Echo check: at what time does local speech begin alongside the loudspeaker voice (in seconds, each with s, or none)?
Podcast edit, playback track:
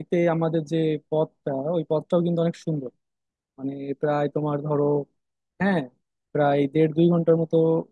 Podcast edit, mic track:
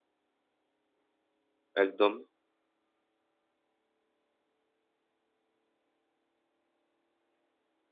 1.8 s